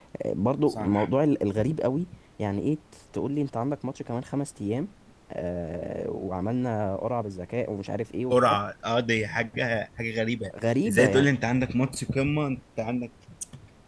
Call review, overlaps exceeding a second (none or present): none